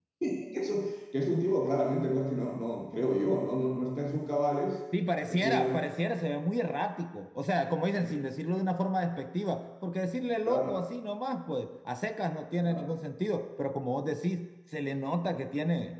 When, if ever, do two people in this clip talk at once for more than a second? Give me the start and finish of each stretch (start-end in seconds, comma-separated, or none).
none